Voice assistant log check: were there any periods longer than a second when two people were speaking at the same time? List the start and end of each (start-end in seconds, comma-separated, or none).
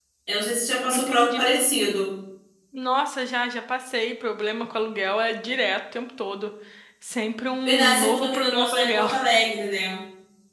7.7-9.1